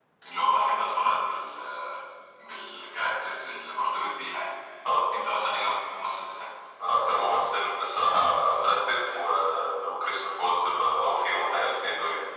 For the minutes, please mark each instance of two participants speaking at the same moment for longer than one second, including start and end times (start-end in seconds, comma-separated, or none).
none